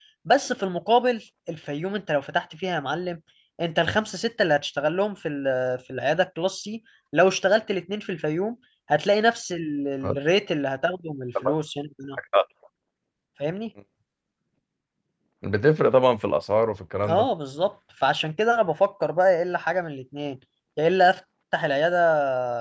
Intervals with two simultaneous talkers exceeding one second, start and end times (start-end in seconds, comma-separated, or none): none